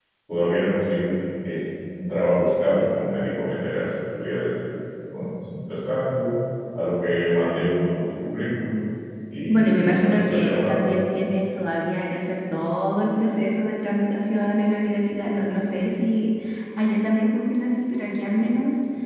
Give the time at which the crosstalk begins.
9.5 s

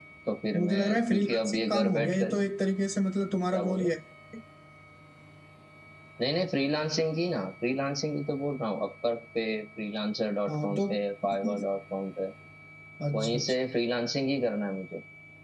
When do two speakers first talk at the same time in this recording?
0.6 s

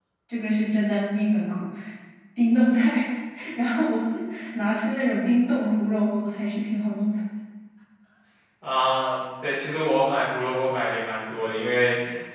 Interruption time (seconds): none

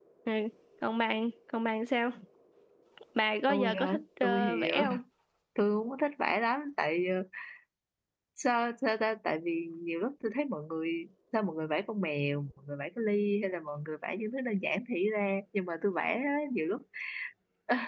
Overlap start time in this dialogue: 3.5 s

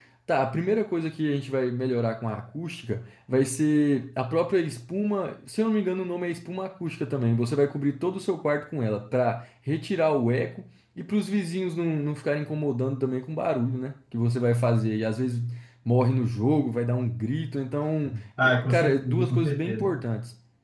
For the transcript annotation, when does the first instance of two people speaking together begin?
18.4 s

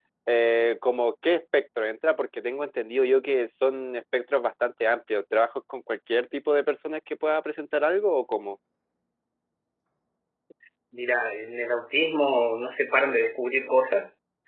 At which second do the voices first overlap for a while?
none

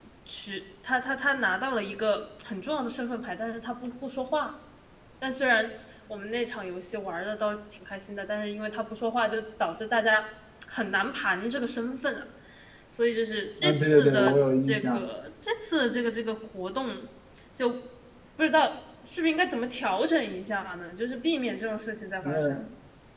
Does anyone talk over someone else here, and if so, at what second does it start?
13.6 s

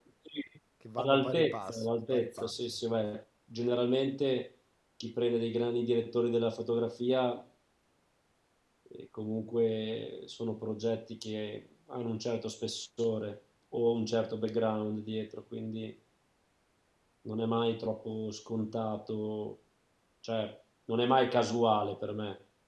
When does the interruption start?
1.0 s

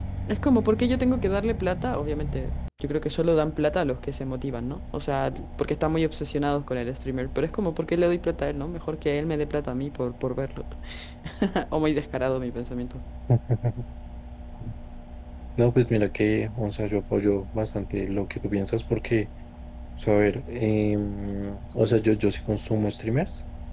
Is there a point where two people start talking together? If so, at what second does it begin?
none

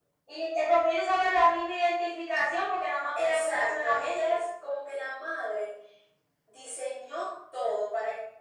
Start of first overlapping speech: 3.1 s

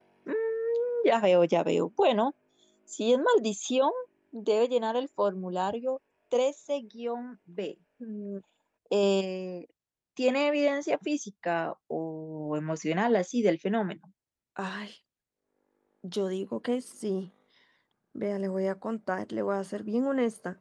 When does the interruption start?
none

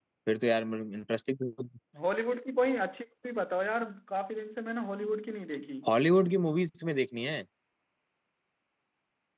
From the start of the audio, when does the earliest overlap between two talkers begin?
none

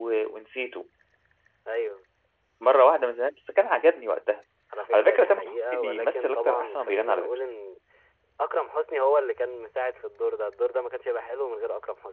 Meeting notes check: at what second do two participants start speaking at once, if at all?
4.9 s

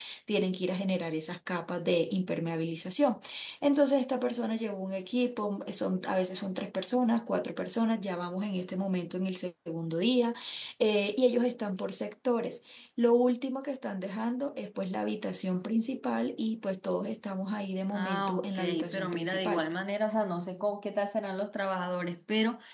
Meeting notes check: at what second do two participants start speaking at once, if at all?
17.9 s

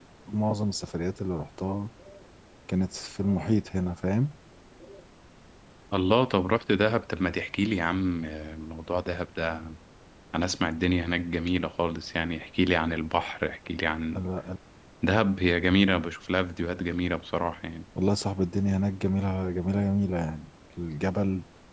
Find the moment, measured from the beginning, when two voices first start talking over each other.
none

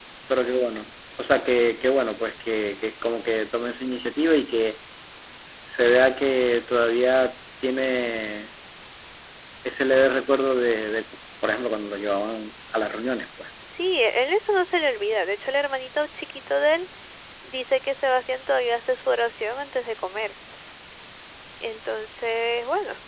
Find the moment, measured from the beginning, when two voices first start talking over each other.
none

